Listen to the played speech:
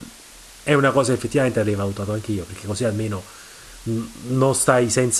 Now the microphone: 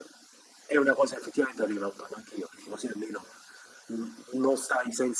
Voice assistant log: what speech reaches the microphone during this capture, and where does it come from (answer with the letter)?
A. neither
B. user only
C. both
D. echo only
D